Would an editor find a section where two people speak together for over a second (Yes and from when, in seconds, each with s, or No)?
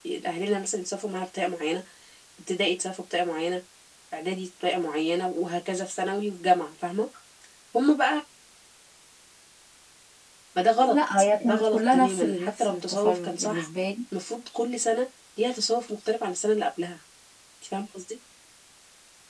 Yes, from 10.9 s